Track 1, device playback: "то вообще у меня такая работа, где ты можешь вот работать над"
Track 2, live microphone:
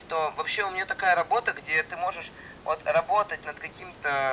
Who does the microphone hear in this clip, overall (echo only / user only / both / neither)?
echo only